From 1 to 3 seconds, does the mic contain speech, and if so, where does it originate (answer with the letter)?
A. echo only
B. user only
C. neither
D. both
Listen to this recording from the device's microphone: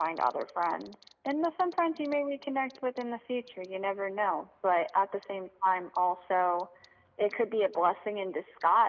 A